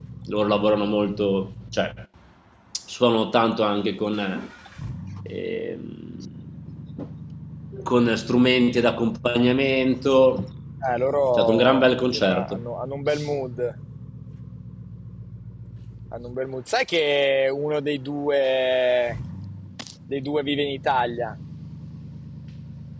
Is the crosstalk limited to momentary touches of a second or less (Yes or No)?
No